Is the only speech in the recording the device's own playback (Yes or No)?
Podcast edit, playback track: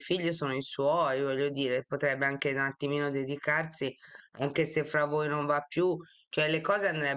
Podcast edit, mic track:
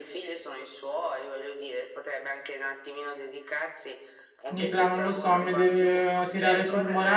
No